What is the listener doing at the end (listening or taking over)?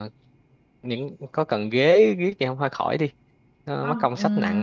taking over